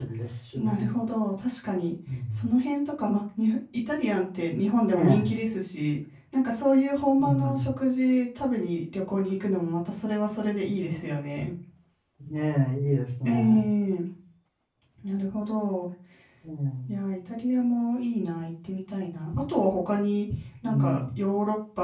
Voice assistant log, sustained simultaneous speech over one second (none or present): none